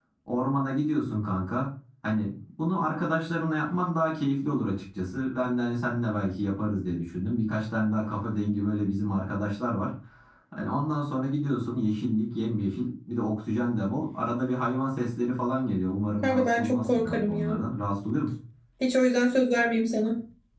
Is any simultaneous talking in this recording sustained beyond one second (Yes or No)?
Yes